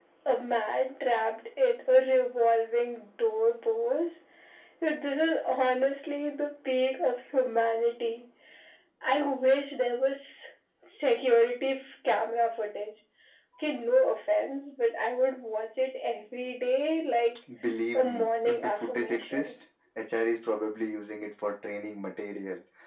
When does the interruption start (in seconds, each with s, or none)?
17.9 s